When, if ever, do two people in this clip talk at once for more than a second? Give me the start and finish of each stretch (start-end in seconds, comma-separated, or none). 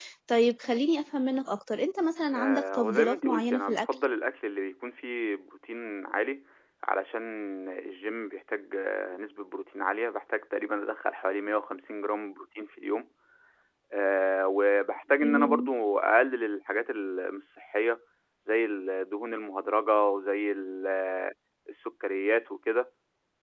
2.3-3.8